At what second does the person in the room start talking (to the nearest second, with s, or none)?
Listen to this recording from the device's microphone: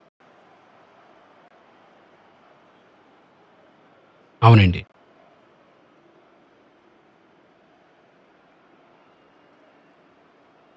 4 s